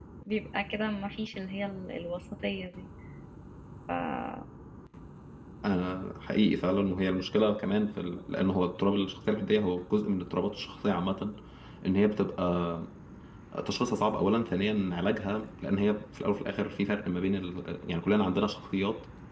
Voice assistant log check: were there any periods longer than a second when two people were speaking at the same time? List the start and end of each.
none

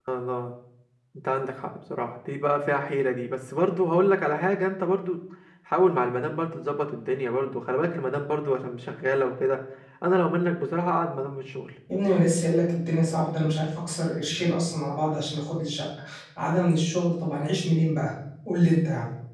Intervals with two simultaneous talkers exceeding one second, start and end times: none

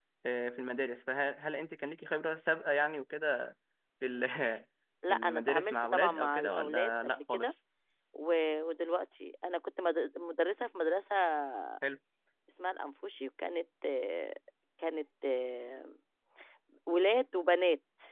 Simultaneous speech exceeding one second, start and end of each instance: 5.1-7.5

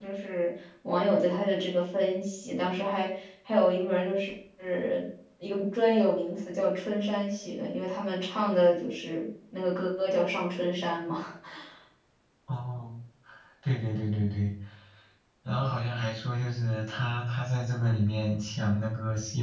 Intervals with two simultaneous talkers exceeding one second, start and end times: none

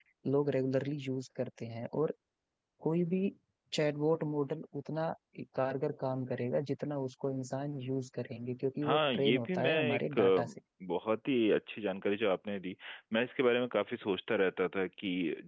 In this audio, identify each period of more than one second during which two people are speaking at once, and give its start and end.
8.8-10.5

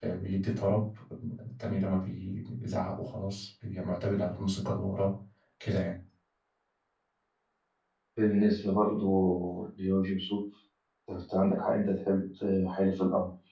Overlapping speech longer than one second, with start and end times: none

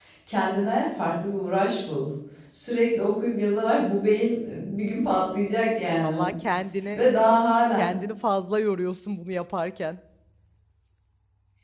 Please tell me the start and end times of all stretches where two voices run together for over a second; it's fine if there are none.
none

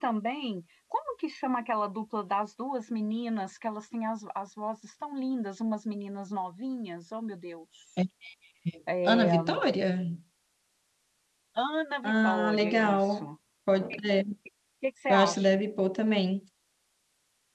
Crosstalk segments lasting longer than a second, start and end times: 12.0-13.3

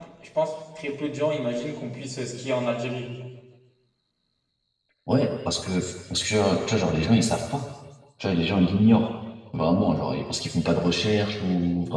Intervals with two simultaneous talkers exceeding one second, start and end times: none

